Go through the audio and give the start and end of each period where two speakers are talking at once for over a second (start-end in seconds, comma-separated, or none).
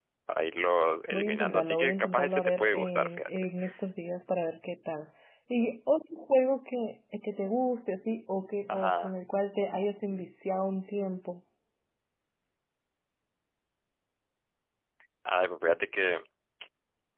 1.1-3.5